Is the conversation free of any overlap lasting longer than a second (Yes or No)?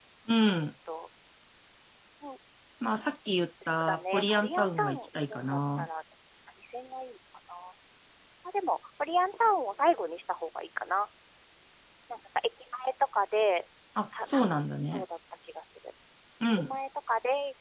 No